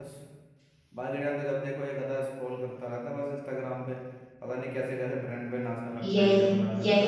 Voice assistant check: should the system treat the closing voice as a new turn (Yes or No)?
Yes